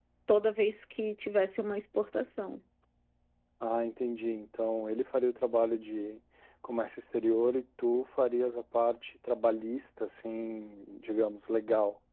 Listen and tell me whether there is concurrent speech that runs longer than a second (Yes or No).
No